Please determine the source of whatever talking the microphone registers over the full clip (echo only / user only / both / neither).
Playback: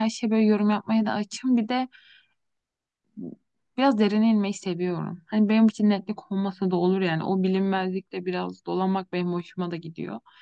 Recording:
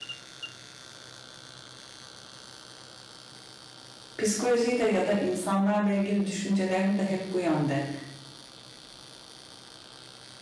user only